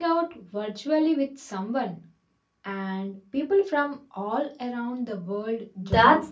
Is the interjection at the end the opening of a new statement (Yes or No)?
Yes